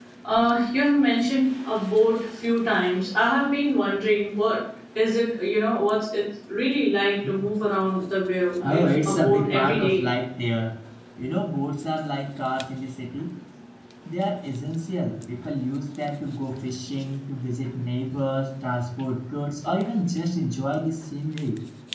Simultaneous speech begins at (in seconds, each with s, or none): 8.6 s